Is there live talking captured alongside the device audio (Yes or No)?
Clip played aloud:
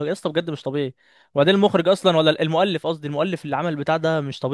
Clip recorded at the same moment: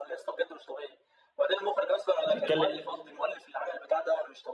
Yes